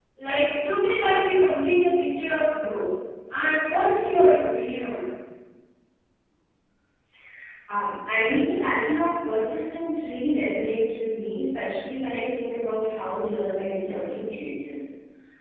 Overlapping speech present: No

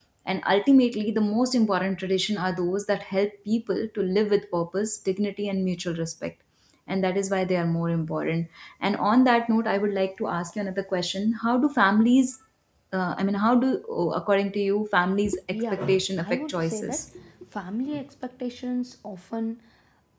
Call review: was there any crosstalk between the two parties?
Yes, from 15.5 s

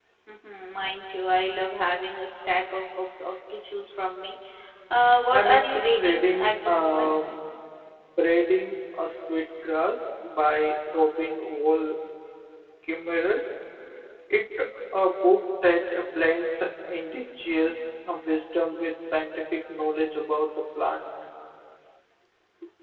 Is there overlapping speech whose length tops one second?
Yes, from 5.3 s

